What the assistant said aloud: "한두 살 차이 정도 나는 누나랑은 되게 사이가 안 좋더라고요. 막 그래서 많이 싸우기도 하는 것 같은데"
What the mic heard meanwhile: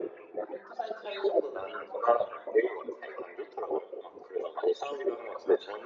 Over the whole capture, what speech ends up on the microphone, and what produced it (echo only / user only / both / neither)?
echo only